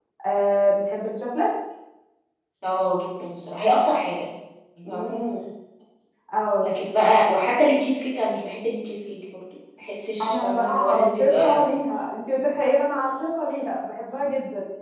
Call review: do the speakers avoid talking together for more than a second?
No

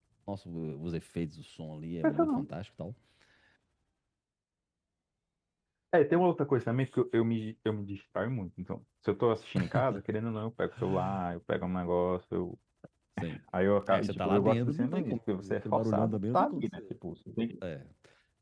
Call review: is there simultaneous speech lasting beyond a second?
Yes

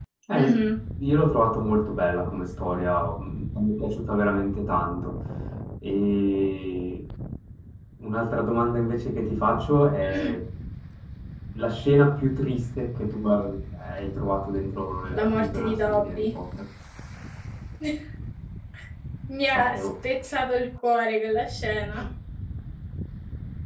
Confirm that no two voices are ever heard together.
No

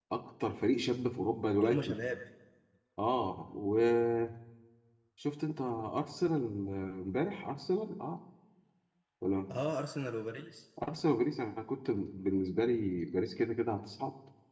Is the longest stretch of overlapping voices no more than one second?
Yes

